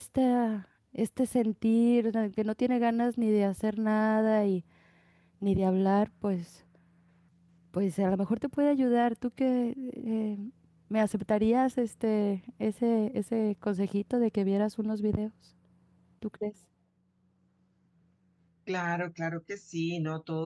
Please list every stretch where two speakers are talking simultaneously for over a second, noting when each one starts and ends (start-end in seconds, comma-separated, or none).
none